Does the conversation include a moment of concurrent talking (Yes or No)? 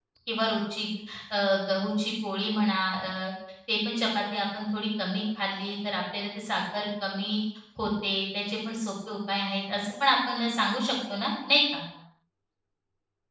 No